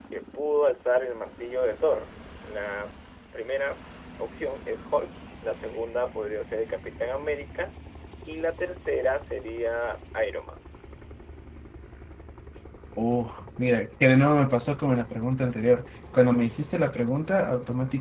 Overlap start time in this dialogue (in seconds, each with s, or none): none